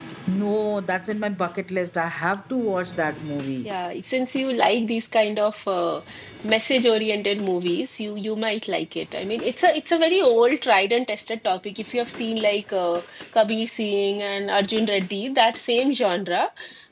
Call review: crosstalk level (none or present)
none